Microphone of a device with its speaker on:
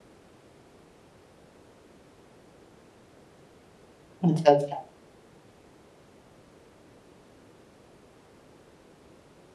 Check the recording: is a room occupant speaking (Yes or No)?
Yes